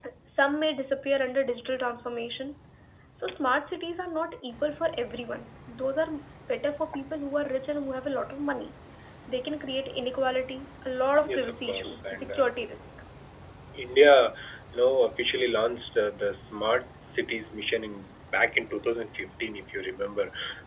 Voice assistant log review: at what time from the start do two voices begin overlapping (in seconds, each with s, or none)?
11.2 s